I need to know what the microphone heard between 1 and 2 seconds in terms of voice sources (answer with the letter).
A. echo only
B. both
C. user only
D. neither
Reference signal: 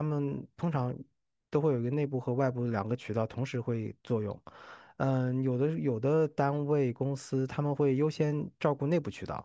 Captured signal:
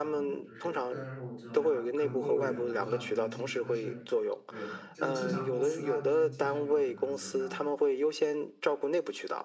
B